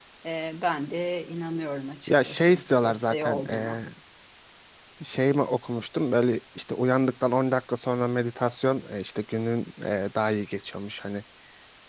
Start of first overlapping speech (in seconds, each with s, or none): 2.1 s